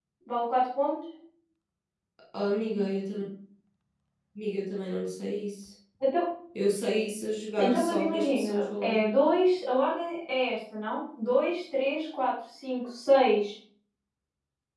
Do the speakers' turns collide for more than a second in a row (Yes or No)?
Yes